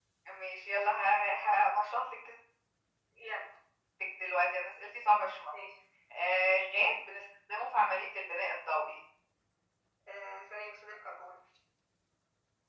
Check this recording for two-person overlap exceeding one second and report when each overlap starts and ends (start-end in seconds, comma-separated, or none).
none